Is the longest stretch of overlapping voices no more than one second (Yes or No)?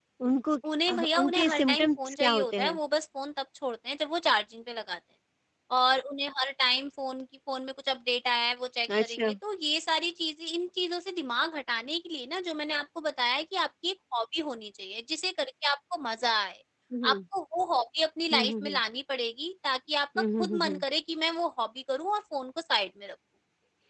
No